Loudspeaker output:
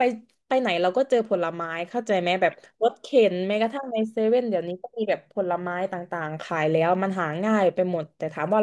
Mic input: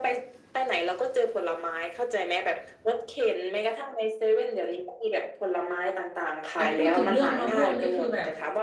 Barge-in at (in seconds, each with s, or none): 6.5 s